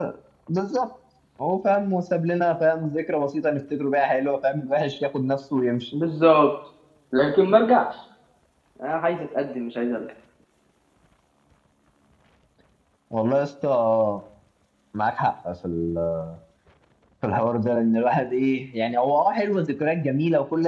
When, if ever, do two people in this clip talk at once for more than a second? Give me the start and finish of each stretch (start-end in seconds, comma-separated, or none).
none